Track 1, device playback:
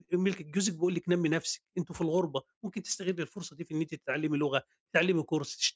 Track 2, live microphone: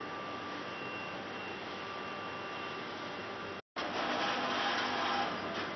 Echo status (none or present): none